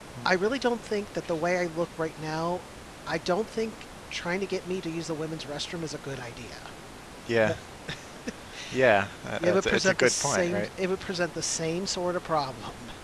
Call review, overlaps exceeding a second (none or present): present